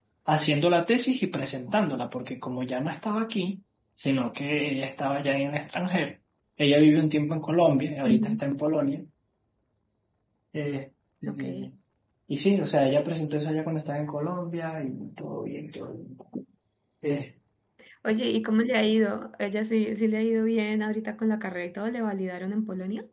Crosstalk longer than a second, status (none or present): none